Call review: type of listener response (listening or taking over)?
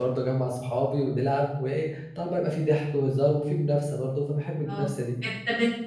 taking over